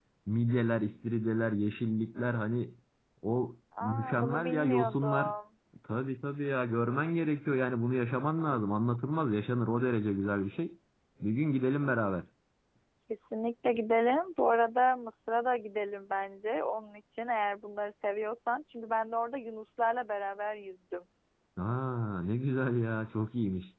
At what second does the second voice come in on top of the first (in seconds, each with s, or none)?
3.8 s